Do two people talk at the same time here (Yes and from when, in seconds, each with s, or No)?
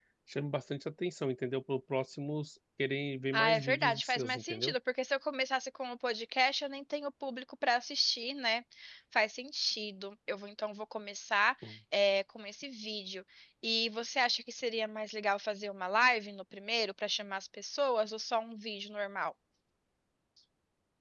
Yes, from 3.3 s